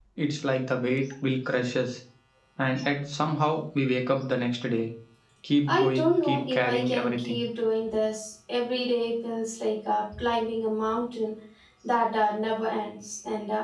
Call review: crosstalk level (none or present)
present